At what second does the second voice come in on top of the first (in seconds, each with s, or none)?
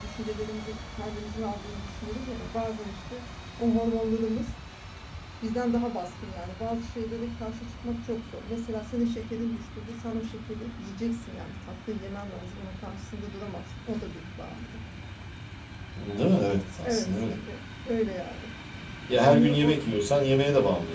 16.2 s